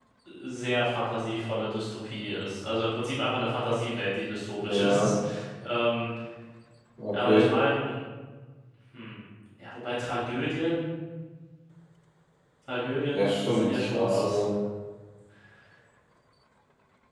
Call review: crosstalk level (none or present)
present